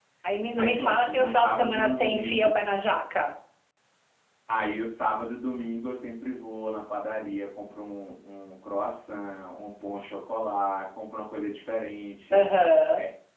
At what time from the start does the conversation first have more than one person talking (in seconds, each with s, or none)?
0.6 s